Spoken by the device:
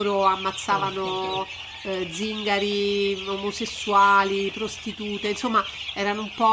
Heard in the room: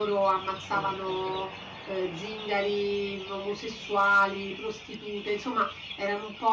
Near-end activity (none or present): none